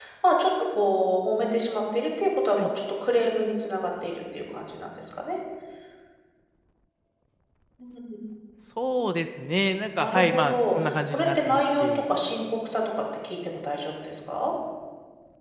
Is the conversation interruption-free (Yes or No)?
No